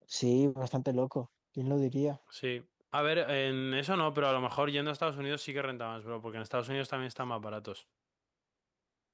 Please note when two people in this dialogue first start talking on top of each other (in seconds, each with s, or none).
none